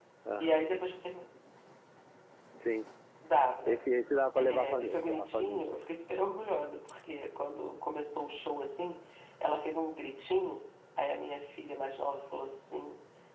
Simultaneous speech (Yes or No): Yes